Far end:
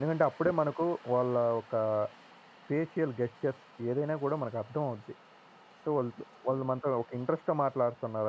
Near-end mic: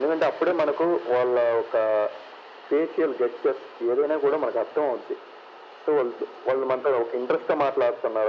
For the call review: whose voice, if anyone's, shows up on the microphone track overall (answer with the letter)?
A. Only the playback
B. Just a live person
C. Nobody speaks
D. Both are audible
A